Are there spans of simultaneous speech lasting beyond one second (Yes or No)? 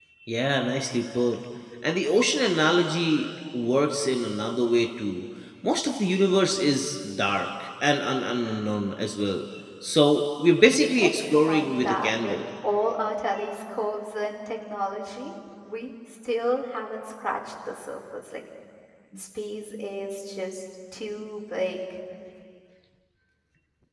Yes